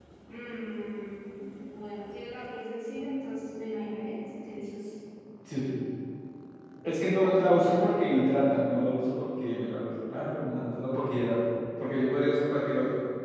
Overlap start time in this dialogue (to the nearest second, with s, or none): 7 s